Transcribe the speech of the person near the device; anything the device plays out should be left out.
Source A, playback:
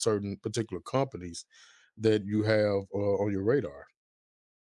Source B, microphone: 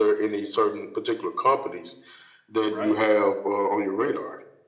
Right.

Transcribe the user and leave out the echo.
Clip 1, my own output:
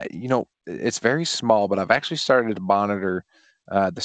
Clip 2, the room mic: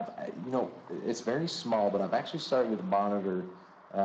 none

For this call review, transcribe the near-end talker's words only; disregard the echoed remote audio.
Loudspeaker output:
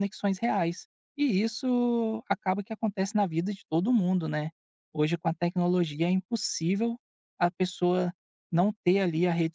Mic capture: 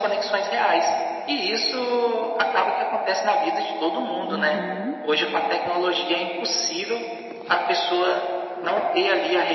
Uhum.

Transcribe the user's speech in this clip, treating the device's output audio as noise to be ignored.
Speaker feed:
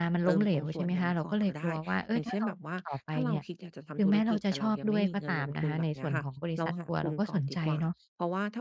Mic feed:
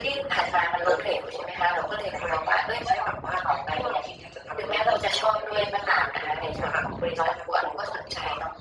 none

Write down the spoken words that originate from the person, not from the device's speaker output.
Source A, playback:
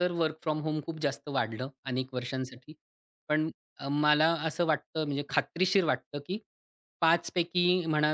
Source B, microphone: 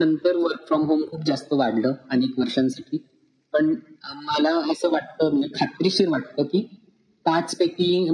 none

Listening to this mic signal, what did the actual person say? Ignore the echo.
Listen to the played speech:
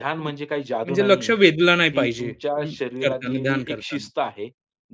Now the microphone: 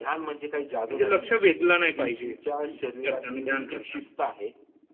none

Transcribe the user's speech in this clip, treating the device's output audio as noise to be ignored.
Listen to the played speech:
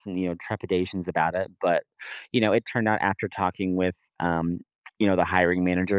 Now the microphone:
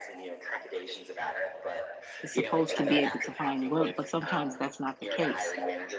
supposed to be able to find work, but sometimes that's not the case.

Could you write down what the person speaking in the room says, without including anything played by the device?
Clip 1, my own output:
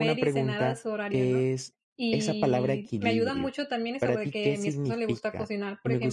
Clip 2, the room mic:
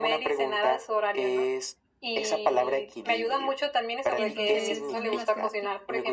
Entonces, una de las cosas que

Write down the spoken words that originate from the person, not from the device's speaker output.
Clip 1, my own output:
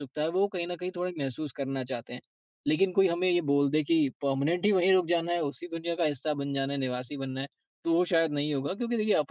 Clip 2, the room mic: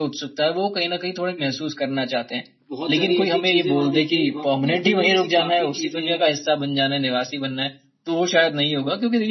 बहुत सारी ऐसी चीज़ें वहाँ देखने वहाँ क्योंकि इस दुनिया में से काफ़ी चीज़ें हैं

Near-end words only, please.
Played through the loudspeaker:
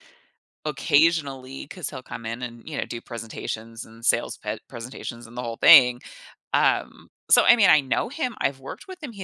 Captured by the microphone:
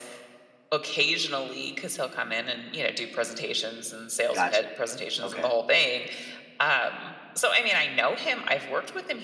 gotcha. Okay,

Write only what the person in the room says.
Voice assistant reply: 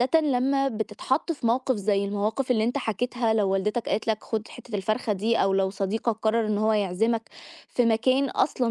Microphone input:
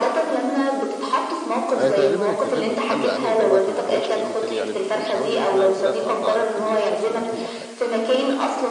أنا تقريبًا اكتفيت بالحل العملي دوّة وما احاولش أكلمه تاني، يعني مش عاوز أقول لِك إن أنا بدأت أقطع علاقتي بيه أساسًا، لإن هو ح

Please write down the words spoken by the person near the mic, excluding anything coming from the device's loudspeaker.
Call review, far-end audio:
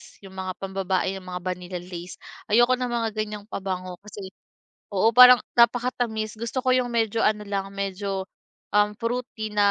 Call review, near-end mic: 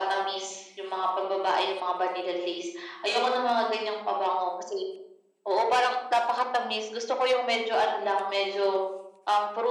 none

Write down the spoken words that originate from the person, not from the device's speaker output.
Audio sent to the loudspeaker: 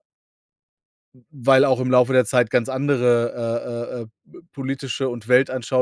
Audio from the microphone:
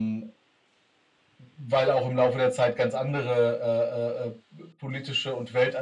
none

